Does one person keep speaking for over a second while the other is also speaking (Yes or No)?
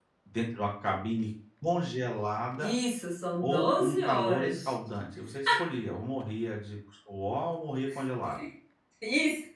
Yes